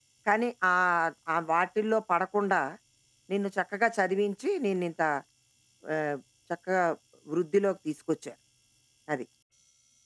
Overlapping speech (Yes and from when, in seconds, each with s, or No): No